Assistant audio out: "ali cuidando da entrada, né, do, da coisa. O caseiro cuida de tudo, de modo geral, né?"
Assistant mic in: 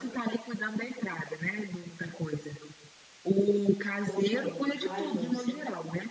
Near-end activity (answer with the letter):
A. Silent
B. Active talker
B